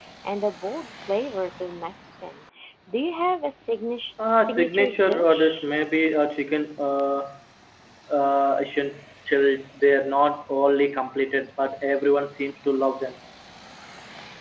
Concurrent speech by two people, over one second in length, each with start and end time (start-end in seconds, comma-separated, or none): 4.4-5.7